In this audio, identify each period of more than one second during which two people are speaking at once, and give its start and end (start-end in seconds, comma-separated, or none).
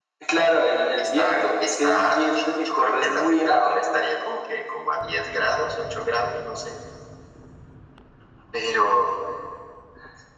1.0-3.8